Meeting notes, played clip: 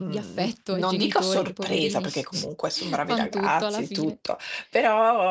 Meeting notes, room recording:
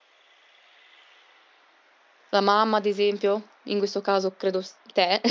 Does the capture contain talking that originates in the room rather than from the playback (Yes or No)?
Yes